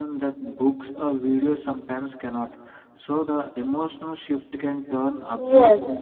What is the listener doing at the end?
taking over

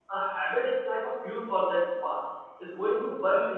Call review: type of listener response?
listening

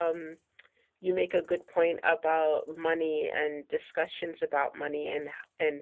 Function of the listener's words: listening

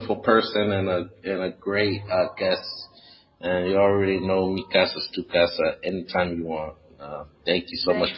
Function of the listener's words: taking over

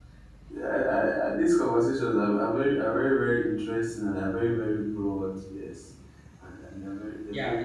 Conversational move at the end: taking over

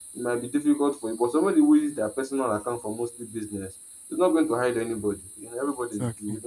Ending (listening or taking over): listening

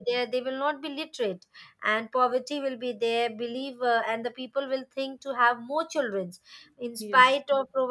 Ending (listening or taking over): listening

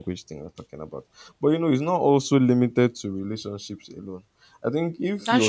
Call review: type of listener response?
listening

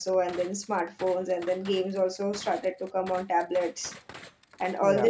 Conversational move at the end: listening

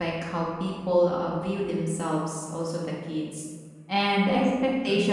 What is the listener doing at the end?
listening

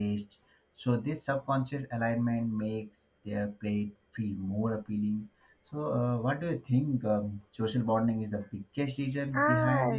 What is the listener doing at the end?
taking over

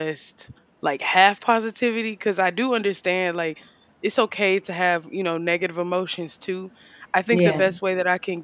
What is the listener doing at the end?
listening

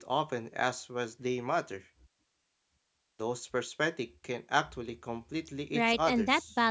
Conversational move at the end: taking over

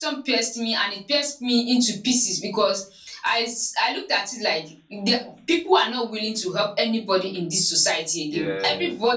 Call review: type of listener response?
listening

